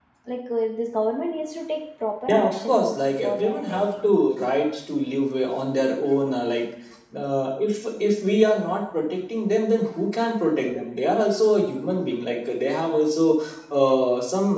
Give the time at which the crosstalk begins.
2 s

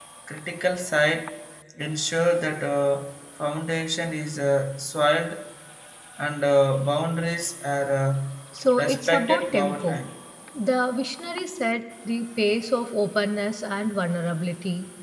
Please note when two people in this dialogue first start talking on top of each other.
9 s

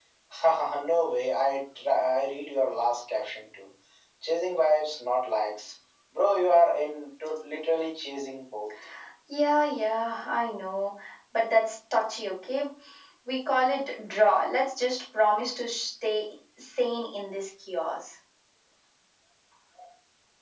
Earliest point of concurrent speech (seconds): none

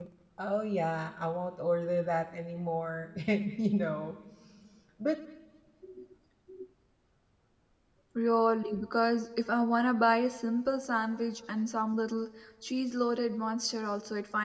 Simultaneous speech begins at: none

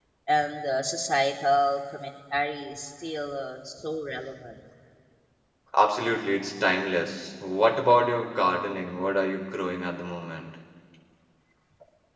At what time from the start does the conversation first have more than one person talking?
none

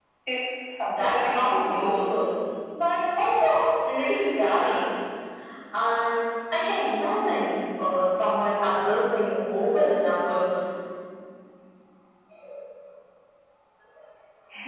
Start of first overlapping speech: 1 s

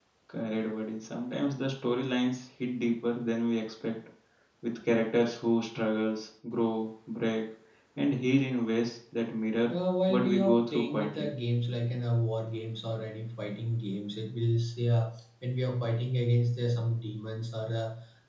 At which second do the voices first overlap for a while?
10 s

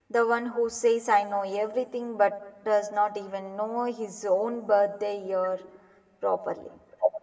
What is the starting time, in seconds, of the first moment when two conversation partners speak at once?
none

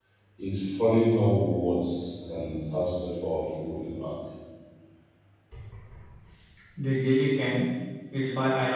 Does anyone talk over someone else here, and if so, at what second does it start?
none

